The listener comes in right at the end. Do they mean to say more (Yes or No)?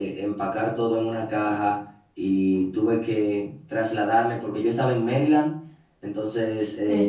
No